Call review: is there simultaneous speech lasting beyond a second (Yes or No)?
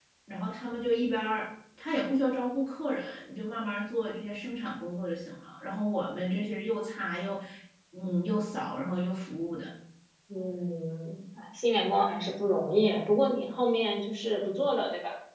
No